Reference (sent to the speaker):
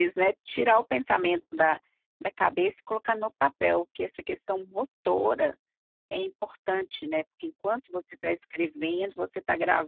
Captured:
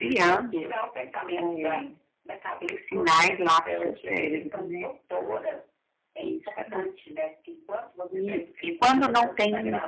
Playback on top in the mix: No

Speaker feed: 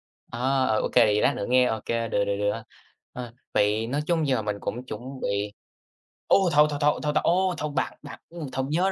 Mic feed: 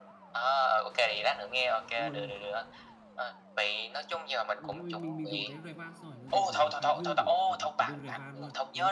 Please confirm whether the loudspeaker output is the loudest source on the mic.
Yes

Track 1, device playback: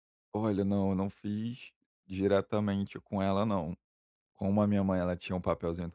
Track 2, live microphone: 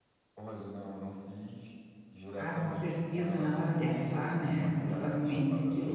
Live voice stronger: Yes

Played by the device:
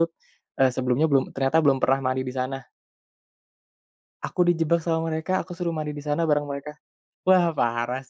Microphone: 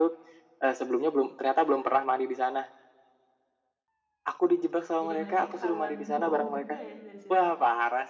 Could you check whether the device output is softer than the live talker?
No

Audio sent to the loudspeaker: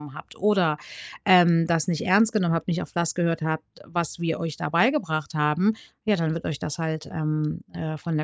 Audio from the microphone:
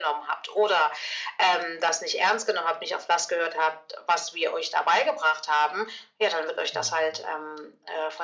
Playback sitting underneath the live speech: No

